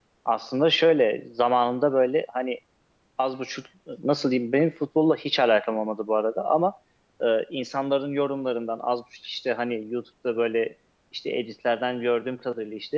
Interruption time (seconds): none

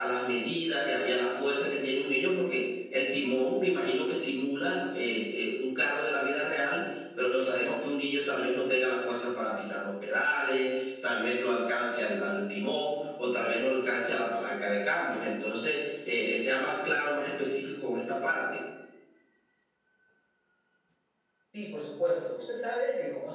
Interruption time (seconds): none

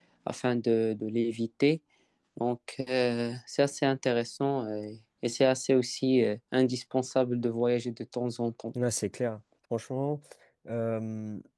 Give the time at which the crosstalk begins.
none

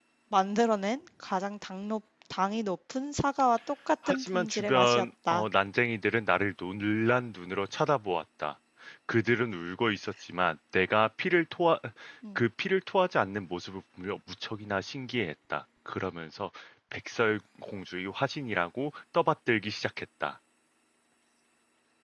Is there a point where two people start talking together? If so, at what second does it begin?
4.0 s

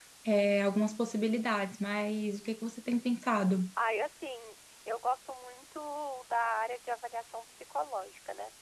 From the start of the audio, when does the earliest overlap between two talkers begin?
none

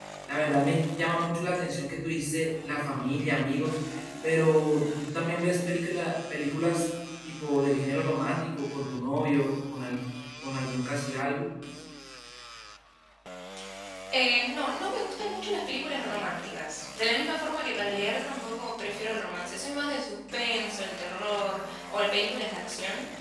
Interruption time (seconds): none

